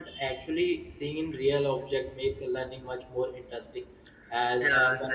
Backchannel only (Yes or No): Yes